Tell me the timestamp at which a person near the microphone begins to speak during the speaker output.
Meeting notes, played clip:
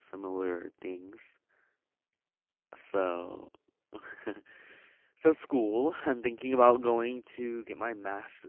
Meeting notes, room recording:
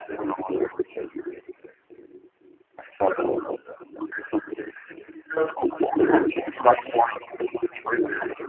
none

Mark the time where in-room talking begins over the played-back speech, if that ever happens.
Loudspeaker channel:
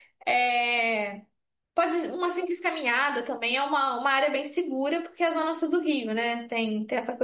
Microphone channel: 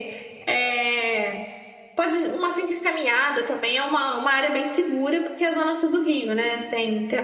none

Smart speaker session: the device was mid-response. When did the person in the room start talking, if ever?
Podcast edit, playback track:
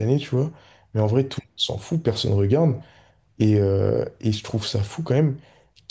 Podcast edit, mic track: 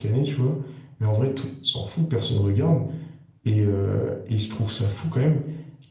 none

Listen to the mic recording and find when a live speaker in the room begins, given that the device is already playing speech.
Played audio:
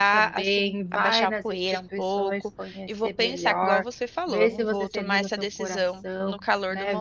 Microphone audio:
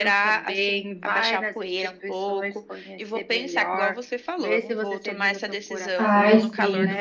5.9 s

